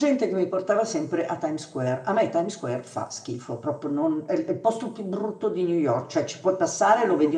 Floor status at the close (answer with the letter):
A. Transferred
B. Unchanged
B